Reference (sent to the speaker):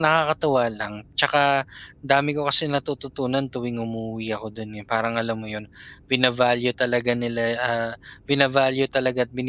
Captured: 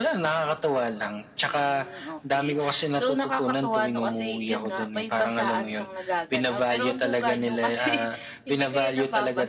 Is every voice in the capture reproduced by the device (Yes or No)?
No